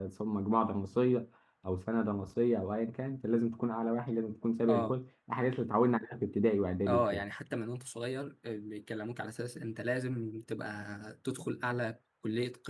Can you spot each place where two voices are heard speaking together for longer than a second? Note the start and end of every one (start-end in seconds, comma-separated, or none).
none